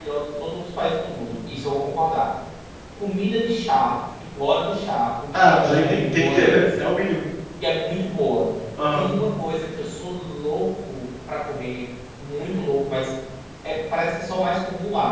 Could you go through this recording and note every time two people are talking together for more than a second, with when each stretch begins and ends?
5.3-6.6

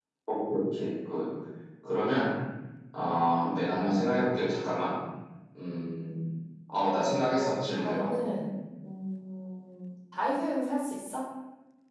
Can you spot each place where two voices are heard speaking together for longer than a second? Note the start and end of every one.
6.7-8.1

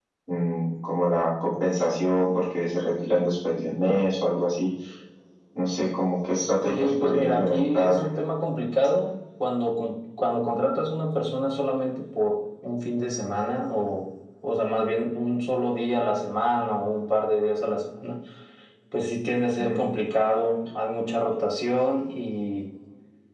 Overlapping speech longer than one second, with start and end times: 6.7-8.0

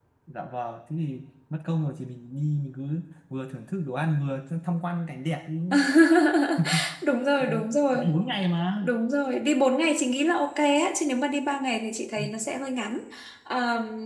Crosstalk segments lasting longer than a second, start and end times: none

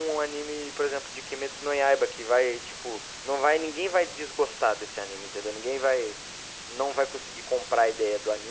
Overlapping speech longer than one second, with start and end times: none

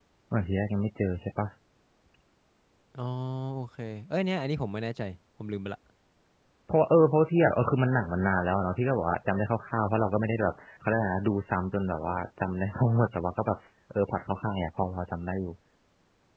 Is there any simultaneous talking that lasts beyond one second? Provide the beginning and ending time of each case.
none

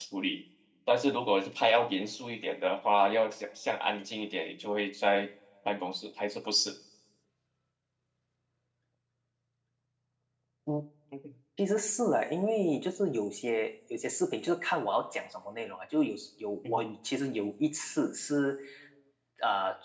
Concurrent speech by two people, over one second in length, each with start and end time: none

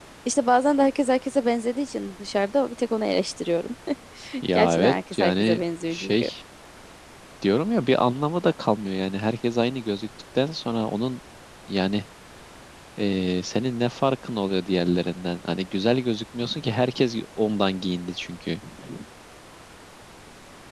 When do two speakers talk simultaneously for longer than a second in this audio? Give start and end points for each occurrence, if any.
4.5-6.3

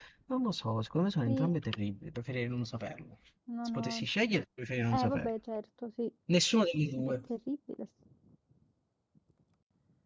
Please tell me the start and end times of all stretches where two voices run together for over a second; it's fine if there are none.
none

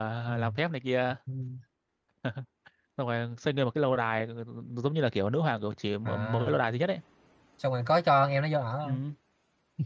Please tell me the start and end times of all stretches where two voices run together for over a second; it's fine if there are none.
none

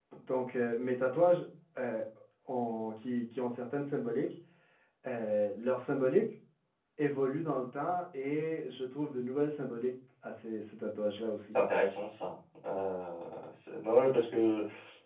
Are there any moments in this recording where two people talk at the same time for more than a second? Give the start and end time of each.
none

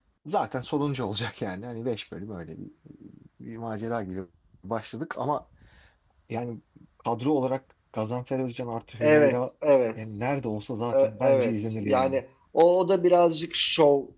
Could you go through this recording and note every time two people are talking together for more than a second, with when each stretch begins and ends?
10.9-12.2

